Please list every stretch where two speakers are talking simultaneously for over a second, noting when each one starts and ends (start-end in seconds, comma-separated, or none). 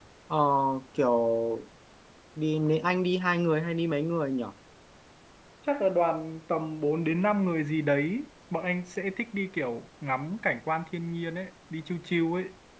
none